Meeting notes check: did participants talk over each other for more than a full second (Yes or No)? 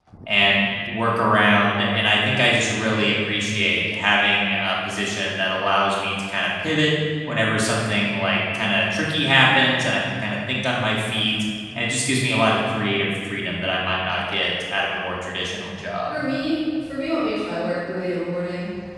No